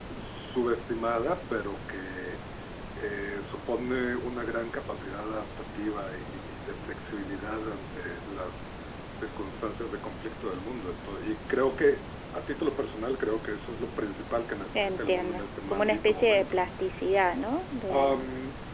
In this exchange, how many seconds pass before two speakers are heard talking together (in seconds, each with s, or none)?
14.7 s